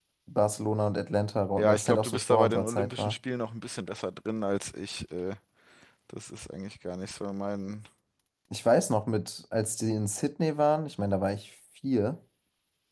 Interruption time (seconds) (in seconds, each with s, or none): 1.6 s